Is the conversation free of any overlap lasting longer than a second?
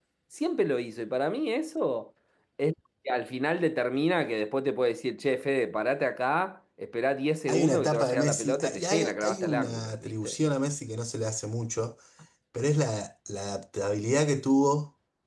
No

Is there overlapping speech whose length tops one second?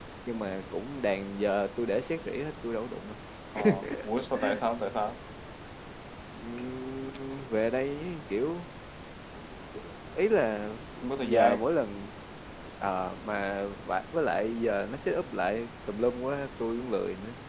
No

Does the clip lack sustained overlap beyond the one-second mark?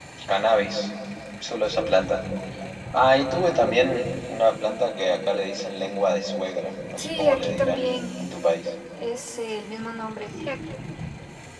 No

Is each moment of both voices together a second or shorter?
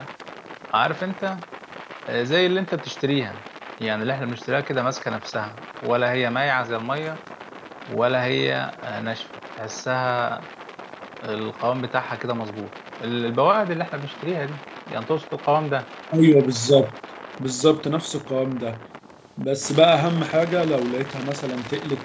Yes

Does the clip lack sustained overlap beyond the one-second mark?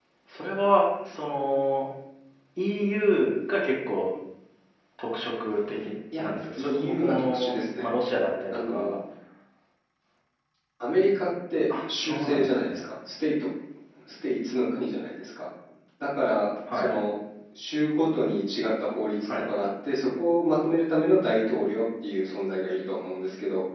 No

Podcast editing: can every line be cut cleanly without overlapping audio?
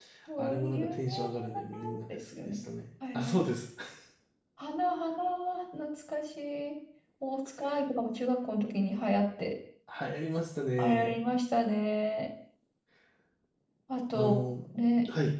No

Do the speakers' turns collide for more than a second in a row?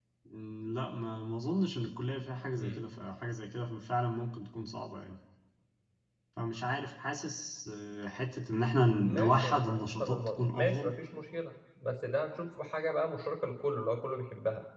Yes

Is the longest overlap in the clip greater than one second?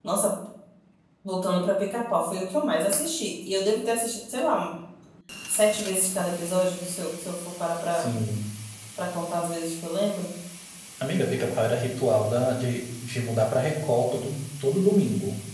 No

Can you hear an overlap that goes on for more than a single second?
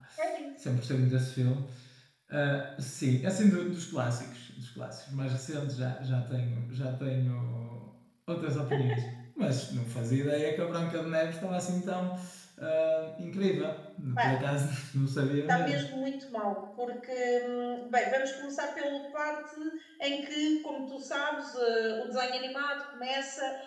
No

